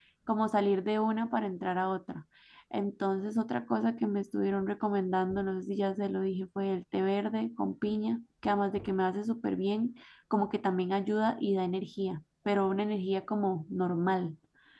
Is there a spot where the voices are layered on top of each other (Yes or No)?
No